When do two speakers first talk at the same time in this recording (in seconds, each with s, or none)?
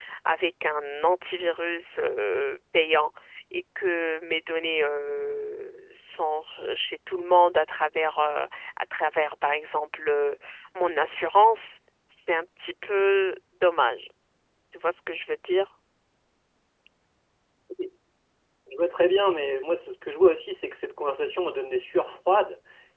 none